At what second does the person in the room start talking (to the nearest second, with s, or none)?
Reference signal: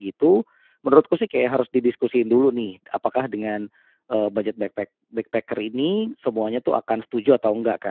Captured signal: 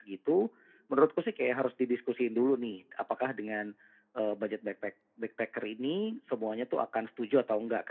none